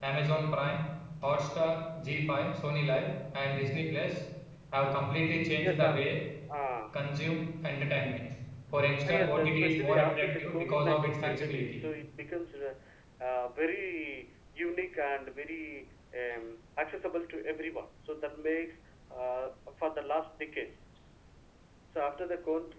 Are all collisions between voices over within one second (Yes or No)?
No